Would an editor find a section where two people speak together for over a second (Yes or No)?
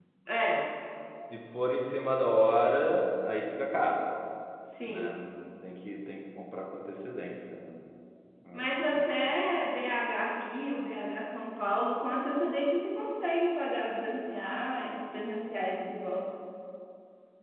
No